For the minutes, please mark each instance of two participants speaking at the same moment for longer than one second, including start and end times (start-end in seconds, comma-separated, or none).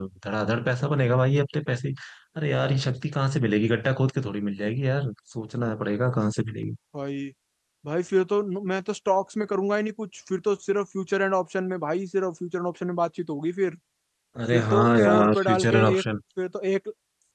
14.5-16.0